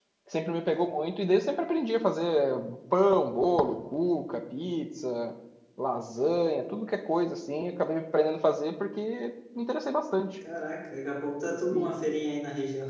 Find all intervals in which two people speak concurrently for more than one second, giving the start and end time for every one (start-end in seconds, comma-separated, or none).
none